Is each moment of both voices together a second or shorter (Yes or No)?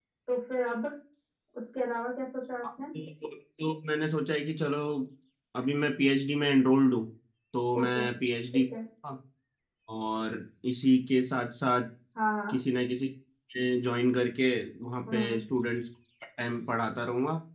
Yes